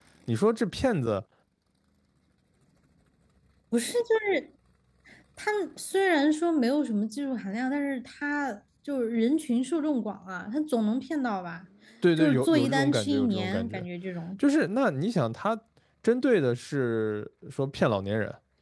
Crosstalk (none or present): present